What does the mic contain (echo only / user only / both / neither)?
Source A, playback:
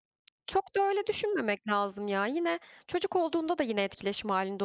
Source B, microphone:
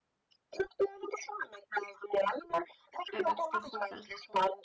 both